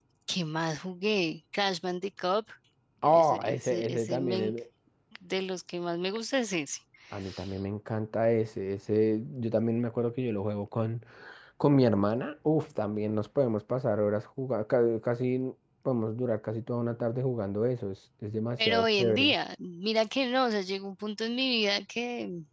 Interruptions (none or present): present